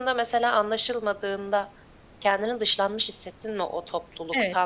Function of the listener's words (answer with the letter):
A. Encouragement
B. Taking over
B